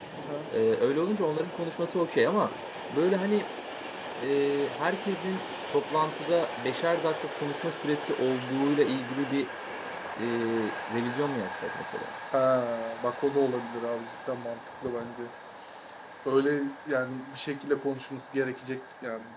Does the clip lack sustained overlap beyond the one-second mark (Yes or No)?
Yes